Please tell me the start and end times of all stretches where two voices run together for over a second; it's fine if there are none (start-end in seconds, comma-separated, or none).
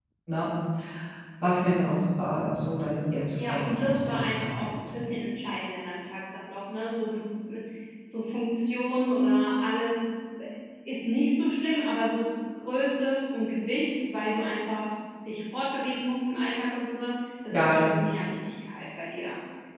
3.3-4.9